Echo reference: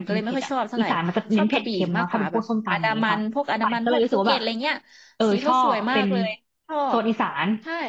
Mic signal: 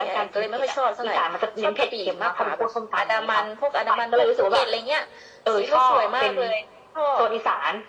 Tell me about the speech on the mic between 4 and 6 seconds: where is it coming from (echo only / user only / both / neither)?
echo only